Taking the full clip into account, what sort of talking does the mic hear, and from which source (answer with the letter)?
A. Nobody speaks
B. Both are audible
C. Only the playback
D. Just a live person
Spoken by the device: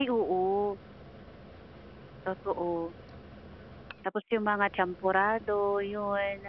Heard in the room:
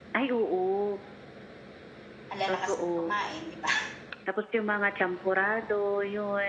B